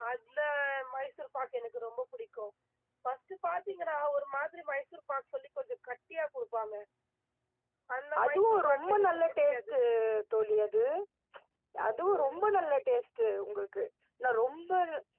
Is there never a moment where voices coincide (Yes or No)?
No